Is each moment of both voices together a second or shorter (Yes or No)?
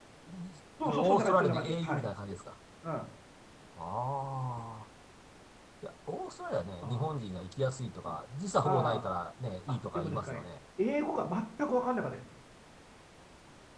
No